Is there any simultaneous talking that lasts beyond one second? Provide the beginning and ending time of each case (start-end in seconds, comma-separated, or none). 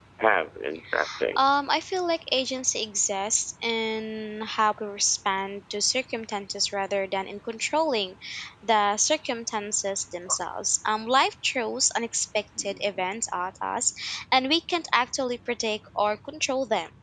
none